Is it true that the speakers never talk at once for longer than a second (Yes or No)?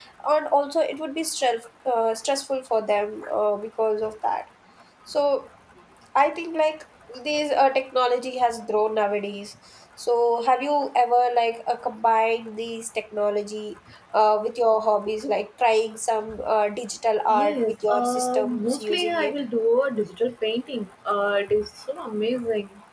No